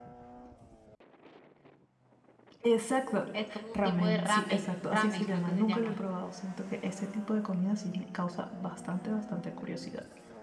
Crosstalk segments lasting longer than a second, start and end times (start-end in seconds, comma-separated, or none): 3.7-6.0